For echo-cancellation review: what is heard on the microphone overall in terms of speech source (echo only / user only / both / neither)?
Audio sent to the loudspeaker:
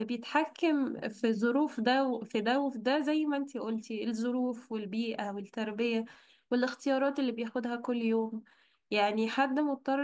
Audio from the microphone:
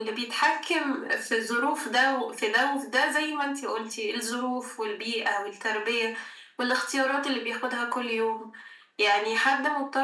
echo only